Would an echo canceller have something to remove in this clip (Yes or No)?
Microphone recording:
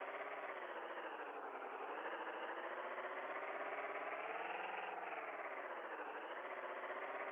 No